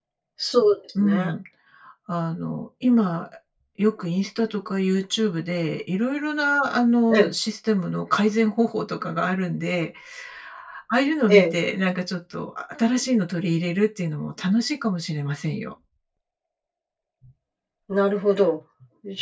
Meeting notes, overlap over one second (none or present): none